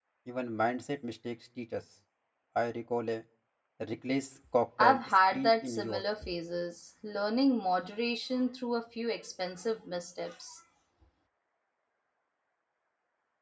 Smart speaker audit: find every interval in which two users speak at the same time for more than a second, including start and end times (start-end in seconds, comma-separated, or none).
4.8-6.0